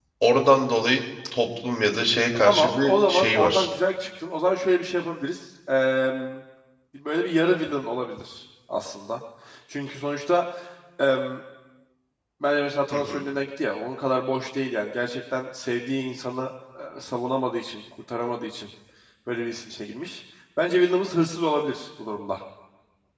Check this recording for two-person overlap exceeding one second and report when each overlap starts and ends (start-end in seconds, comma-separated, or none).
2.4-3.7